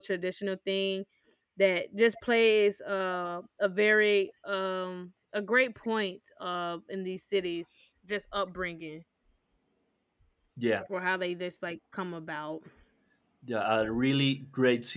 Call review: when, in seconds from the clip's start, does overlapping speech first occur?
none

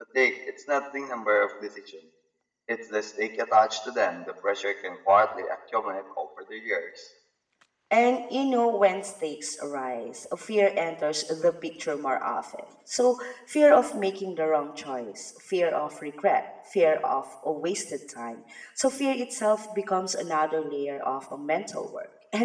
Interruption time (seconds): none

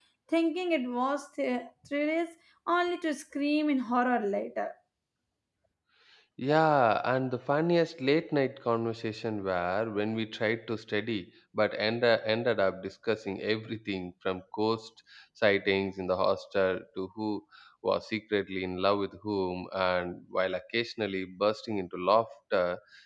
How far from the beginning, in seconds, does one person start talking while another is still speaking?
none

